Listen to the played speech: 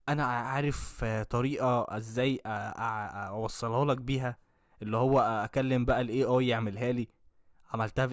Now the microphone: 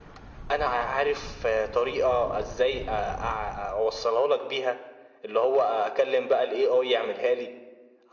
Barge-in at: none

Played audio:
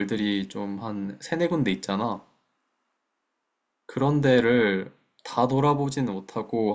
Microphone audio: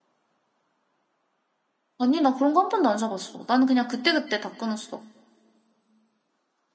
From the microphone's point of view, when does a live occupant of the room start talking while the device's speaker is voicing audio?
2.0 s

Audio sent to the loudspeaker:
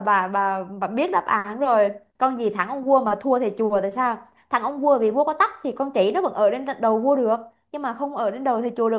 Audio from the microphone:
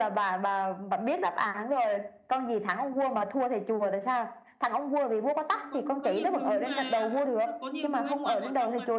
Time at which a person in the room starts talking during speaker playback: 5.5 s

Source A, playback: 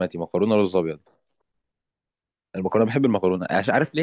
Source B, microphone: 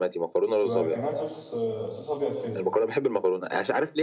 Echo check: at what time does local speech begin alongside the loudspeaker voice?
0.6 s

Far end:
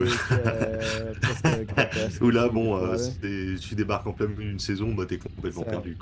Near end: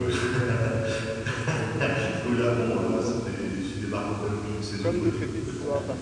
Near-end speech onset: 4.8 s

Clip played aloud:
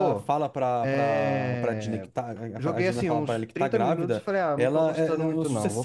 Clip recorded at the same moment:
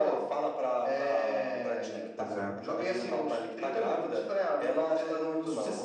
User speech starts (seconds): 2.1 s

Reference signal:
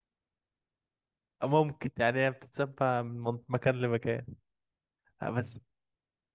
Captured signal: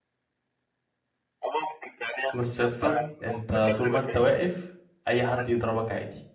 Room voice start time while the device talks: 2.3 s

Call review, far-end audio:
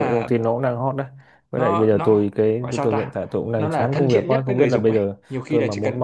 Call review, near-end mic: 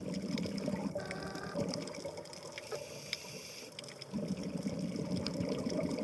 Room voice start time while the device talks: none

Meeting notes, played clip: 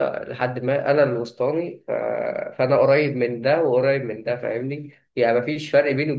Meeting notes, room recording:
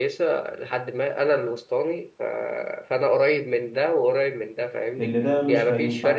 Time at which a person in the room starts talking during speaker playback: 5.0 s

